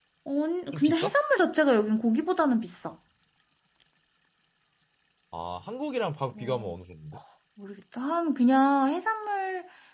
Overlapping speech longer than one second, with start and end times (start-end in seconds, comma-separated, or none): none